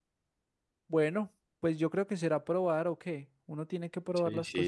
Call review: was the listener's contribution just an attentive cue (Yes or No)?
No